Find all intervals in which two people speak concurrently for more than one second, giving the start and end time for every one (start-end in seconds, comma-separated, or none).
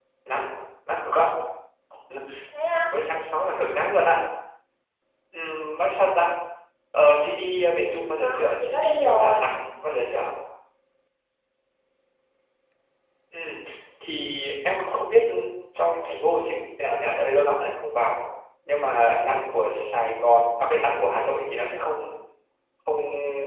8.2-9.5